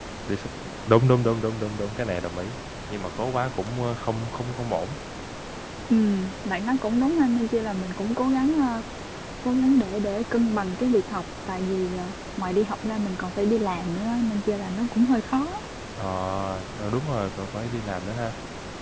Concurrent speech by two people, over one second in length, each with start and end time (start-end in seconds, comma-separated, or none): none